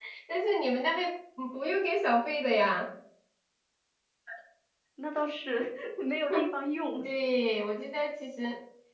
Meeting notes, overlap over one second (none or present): none